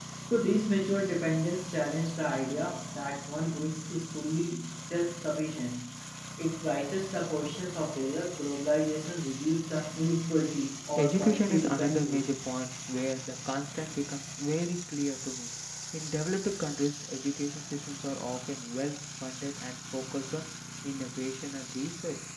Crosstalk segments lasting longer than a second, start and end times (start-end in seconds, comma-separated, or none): 10.9-12.2